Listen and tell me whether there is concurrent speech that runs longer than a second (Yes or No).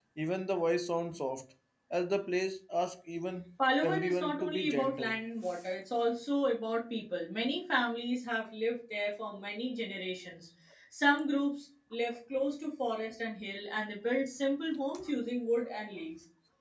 Yes